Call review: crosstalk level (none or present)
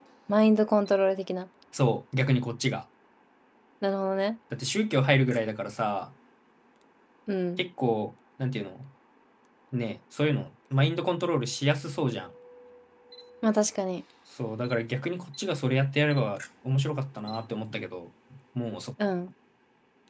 none